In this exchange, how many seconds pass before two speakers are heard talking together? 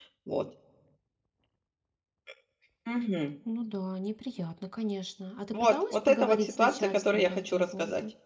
5.5 s

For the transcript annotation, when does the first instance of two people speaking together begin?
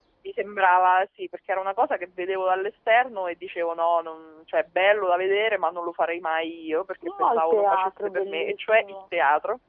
7.0 s

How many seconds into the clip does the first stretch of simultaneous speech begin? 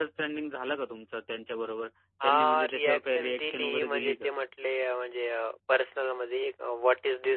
2.2 s

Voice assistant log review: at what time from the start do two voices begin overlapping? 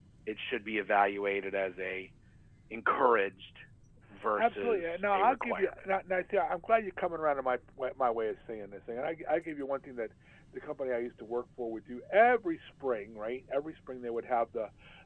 4.4 s

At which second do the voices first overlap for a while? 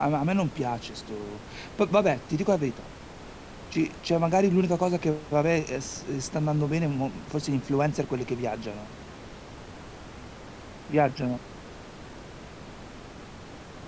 none

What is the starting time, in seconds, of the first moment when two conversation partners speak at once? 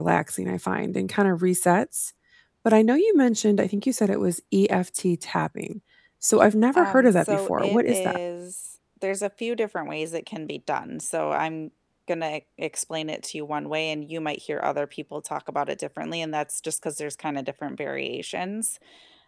6.7 s

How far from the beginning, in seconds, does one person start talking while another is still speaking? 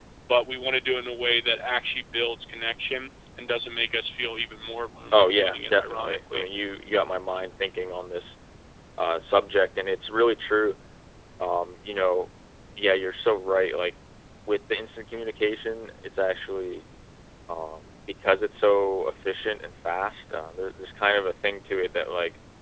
5.1 s

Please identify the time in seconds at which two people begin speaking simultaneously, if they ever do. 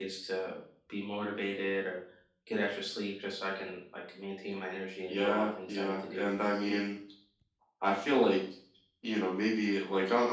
5.1 s

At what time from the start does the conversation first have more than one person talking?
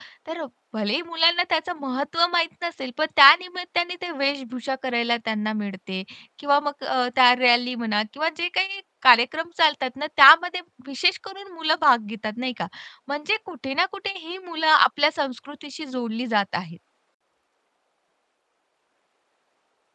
none

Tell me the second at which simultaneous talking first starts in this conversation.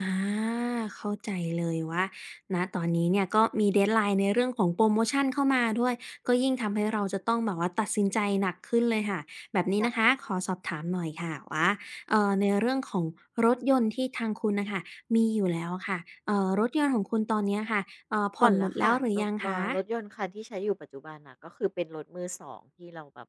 18.4 s

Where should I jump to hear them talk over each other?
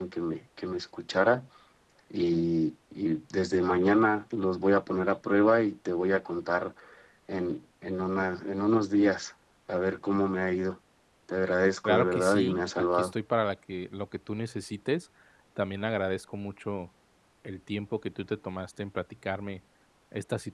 11.8 s

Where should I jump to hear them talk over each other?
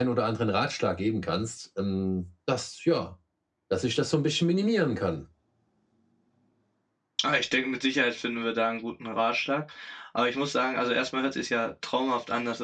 none

